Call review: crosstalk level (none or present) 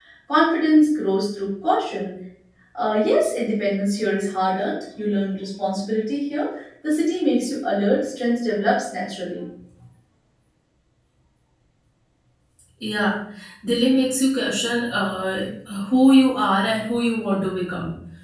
none